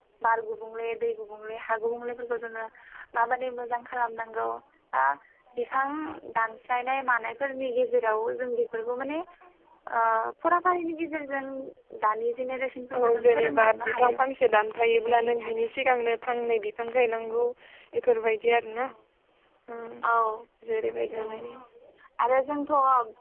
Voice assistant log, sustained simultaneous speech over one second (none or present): present